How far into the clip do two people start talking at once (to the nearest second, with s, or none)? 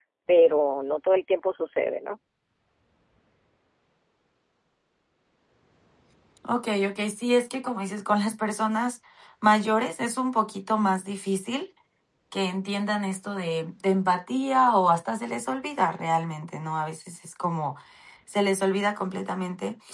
none